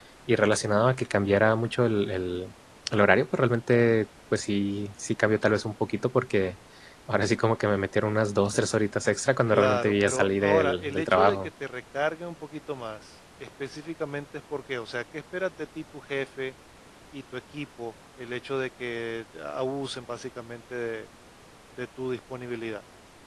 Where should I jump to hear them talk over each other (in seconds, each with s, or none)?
9.5 s